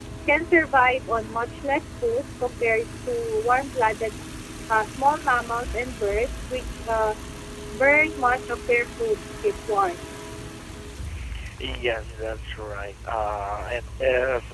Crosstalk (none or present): none